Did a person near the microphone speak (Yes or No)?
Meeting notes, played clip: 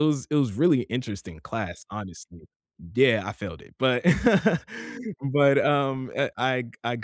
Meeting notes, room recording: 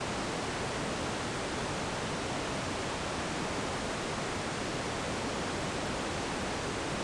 No